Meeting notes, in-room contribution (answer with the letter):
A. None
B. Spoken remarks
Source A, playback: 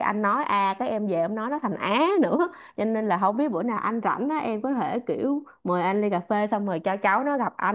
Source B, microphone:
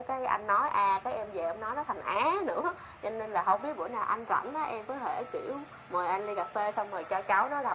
A